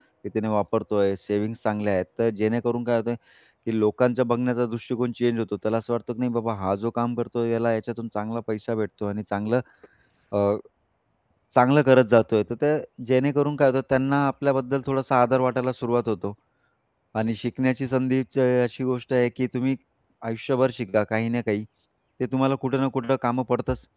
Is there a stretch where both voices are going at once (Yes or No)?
No